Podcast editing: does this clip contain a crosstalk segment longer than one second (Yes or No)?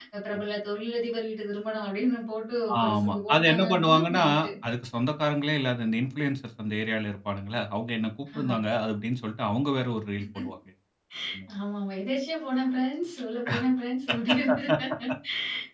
Yes